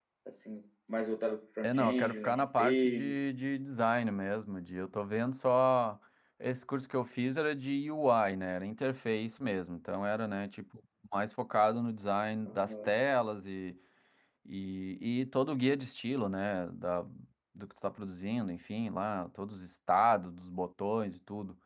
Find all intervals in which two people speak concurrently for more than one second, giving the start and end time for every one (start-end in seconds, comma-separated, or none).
1.6-3.2